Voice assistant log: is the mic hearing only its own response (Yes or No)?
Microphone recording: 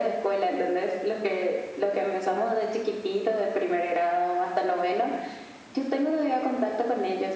Yes